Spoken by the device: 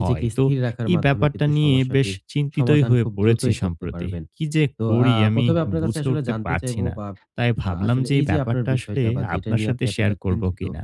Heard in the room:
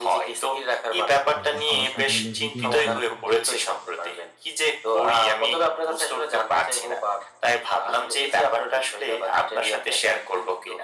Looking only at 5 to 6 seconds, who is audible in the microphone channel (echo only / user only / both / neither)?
echo only